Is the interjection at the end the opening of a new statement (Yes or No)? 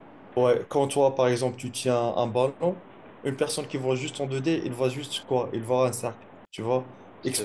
No